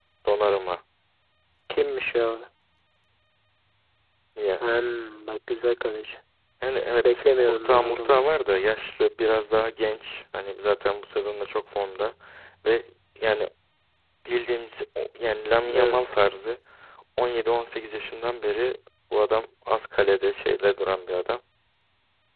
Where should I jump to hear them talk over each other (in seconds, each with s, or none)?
7.0 s